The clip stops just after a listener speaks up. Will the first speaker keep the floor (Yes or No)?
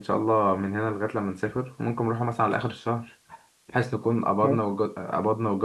Yes